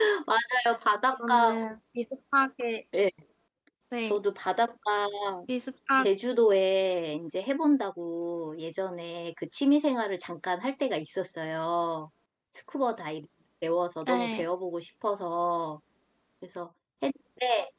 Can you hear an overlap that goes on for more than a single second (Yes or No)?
No